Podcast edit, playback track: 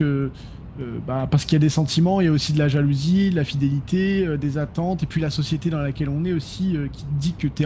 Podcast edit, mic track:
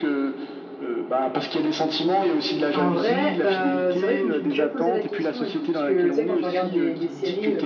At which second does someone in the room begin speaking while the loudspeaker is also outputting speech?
3 s

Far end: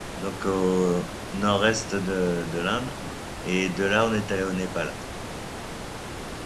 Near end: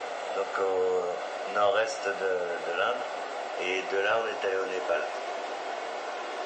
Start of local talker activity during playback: none

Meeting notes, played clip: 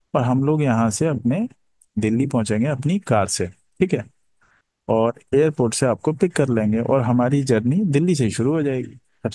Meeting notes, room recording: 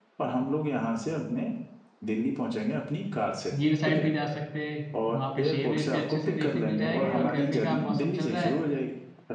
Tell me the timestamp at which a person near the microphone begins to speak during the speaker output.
4 s

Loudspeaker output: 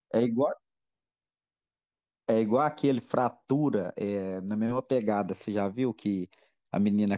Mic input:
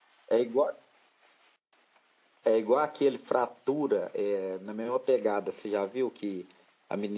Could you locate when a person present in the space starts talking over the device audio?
none

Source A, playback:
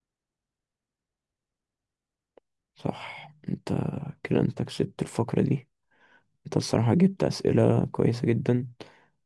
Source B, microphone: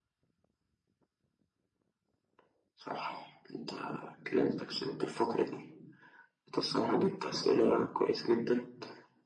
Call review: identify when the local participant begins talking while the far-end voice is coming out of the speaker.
none

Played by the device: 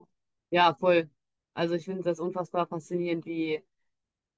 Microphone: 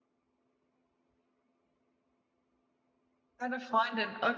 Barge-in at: 3 s

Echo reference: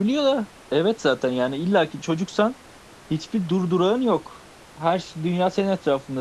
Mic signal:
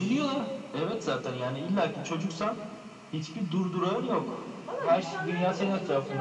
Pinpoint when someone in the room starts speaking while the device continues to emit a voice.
5 s

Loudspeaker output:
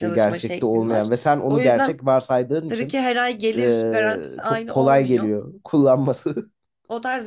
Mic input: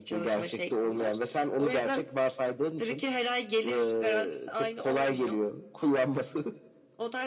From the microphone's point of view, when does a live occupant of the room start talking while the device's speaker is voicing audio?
none

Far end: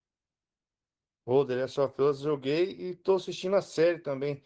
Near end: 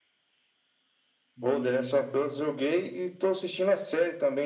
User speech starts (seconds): 1 s

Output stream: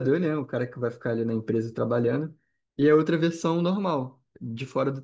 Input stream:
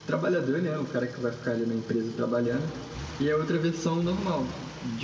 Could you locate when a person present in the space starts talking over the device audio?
none

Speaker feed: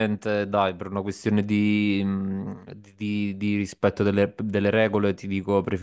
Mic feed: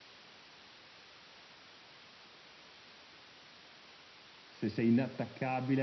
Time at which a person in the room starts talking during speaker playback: 4 s

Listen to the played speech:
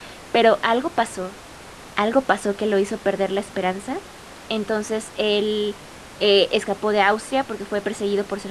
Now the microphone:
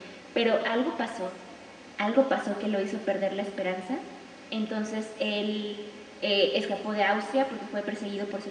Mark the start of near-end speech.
none

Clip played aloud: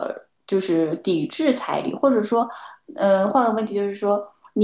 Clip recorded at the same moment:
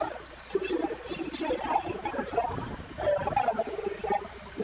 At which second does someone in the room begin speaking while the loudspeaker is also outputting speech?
none

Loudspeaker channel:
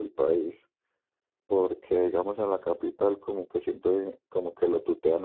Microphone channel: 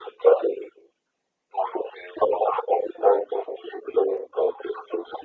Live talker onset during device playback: none

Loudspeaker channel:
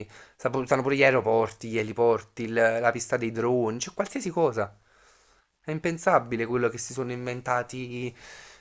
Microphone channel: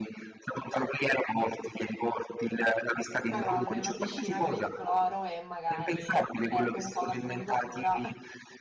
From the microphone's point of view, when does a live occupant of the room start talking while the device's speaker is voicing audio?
3 s

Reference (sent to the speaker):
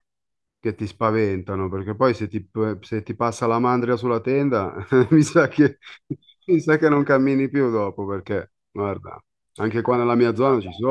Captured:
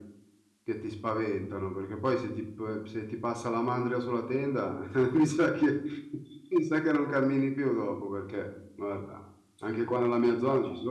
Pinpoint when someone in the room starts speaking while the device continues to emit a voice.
none

